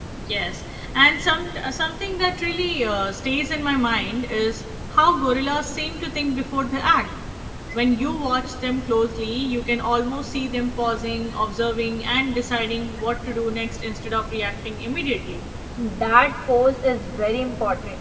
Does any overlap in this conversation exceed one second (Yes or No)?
No